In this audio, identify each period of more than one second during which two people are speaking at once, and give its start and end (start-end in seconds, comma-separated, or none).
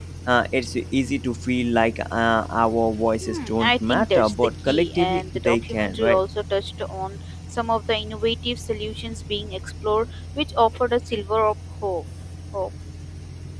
3.2-6.2